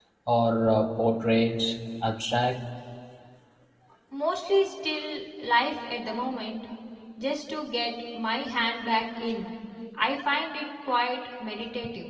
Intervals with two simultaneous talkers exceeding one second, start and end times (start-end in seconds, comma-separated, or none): none